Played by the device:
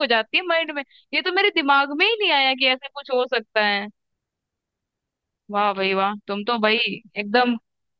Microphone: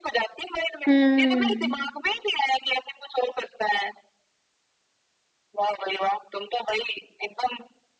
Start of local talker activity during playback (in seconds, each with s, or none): 0.9 s